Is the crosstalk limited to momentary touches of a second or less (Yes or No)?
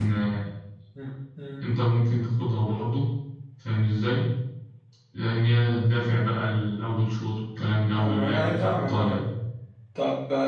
No